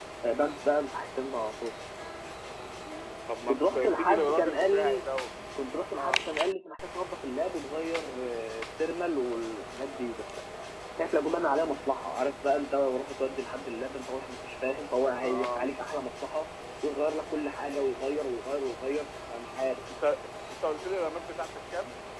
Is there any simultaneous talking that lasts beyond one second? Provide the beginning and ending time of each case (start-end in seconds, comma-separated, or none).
3.5-5.0